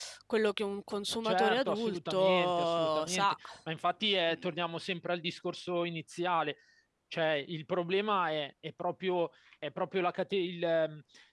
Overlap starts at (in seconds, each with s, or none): 1.2 s